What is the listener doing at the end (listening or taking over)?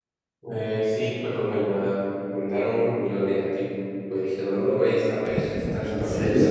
taking over